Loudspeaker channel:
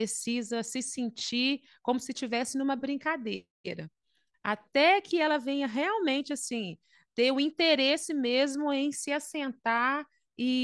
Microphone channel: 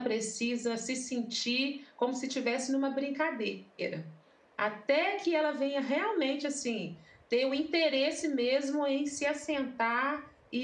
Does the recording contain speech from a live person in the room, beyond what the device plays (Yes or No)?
No